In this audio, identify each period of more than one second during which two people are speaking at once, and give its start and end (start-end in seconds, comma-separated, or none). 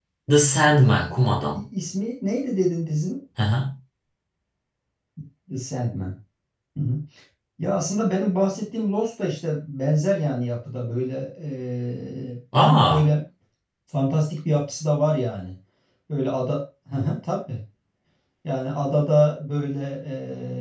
none